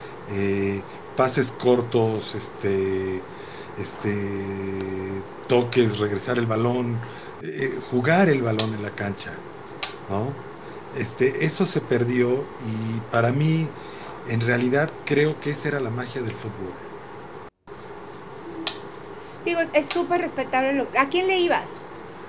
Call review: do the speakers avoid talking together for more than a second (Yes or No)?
Yes